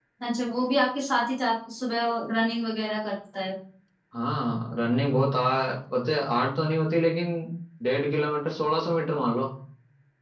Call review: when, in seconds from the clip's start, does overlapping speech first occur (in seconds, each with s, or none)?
none